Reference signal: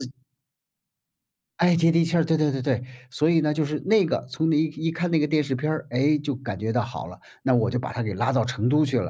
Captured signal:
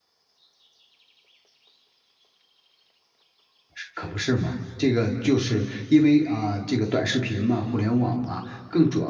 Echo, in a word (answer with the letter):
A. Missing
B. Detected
A